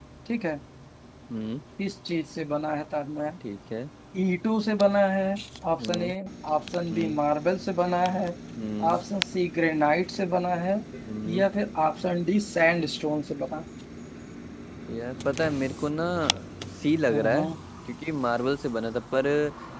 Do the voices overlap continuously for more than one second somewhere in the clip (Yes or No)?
No